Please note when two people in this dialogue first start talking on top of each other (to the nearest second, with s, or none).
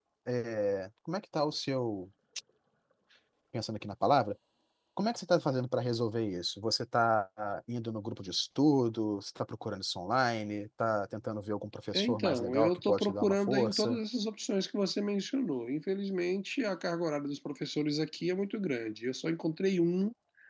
12 s